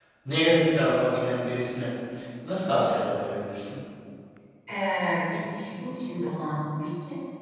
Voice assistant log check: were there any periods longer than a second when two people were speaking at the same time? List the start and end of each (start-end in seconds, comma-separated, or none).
none